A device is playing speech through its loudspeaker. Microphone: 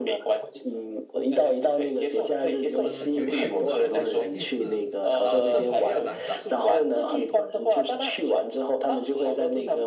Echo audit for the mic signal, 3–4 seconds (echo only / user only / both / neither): both